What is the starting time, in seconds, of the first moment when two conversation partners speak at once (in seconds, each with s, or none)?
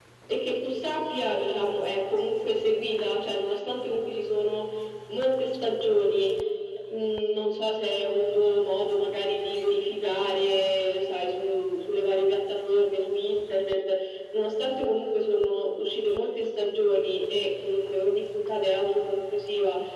none